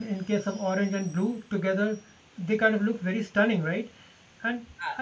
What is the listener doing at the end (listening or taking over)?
listening